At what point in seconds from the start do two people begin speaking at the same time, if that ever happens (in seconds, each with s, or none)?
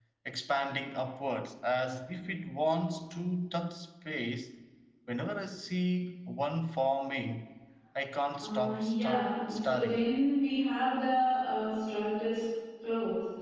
8.4 s